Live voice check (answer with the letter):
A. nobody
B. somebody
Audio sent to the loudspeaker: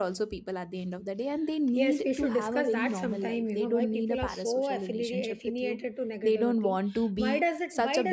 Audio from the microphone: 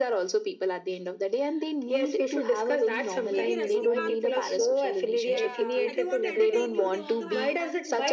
B